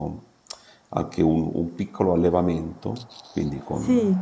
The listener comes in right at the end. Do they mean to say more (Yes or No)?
No